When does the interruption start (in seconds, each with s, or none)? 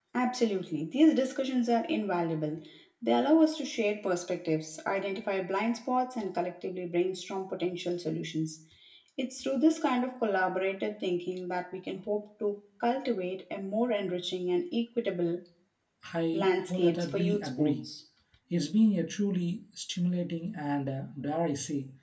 16.3 s